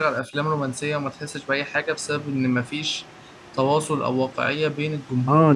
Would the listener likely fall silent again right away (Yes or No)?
No